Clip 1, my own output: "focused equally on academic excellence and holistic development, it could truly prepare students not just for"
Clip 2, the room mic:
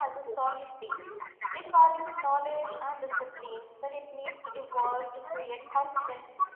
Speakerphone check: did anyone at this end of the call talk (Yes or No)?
Yes